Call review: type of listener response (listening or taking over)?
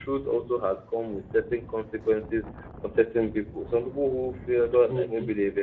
listening